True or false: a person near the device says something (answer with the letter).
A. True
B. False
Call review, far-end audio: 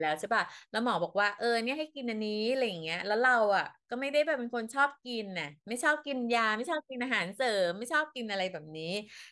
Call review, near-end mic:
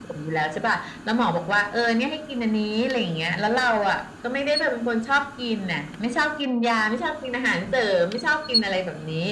B